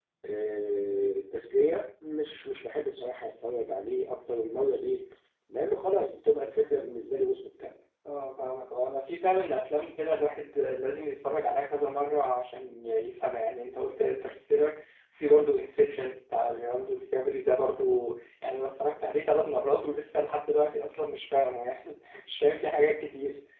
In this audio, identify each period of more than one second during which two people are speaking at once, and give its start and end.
none

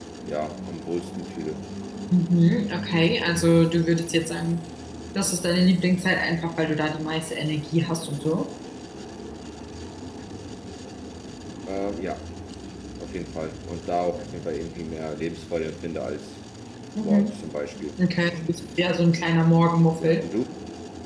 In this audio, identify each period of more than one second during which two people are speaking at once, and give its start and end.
none

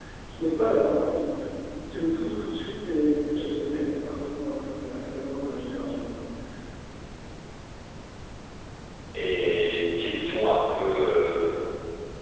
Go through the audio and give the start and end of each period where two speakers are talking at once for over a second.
none

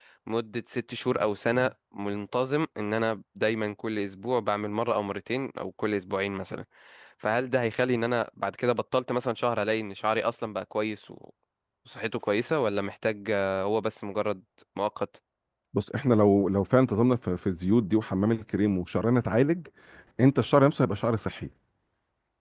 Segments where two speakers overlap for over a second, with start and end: none

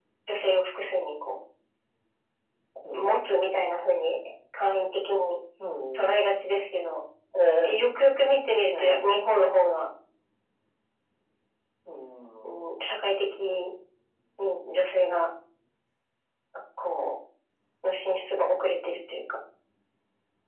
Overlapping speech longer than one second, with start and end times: none

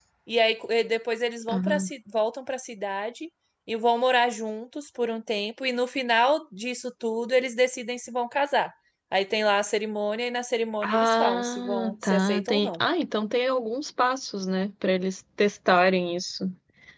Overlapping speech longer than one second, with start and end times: 10.8-12.8

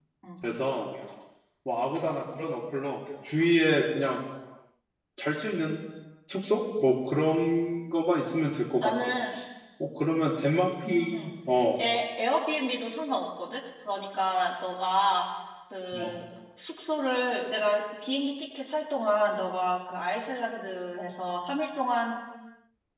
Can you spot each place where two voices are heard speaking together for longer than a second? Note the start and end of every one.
none

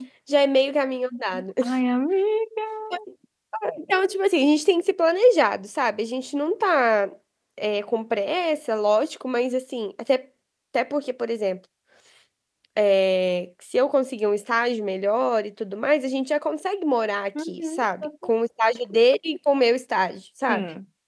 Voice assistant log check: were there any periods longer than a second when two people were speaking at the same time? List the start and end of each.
none

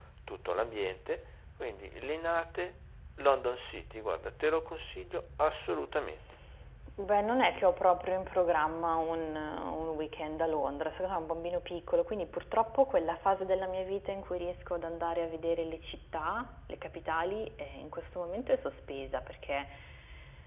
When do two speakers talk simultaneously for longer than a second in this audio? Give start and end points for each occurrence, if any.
none

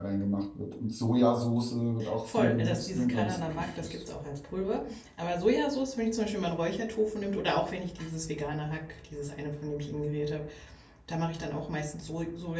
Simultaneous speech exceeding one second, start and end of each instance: 2.3-4.0

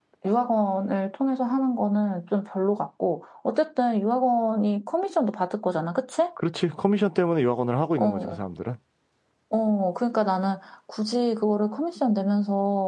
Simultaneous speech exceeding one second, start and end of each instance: none

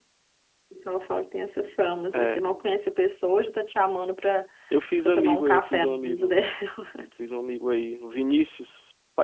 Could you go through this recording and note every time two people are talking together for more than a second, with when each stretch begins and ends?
5.0-6.3

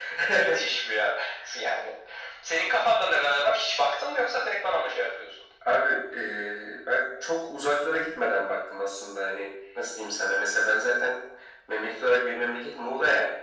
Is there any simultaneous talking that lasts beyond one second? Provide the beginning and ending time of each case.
none

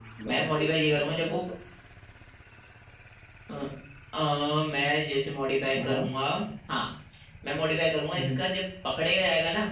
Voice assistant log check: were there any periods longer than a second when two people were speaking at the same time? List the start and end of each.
none

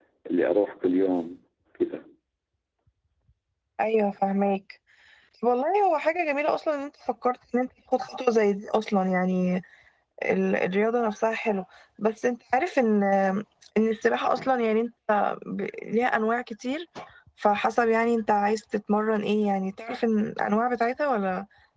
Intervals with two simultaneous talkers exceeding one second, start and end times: none

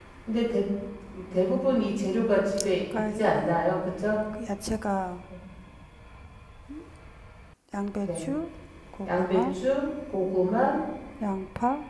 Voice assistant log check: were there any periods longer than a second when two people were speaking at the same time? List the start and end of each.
none

